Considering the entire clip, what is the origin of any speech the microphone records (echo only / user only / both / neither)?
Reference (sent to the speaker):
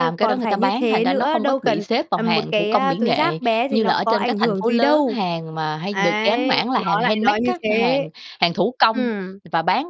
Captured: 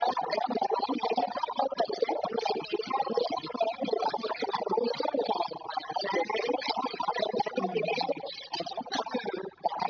both